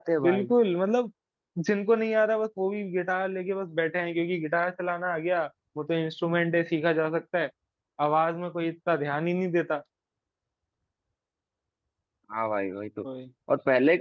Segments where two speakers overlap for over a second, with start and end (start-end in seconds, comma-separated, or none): none